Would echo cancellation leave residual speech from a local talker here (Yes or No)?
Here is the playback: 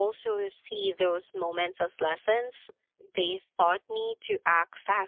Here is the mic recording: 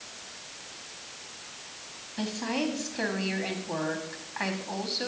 Yes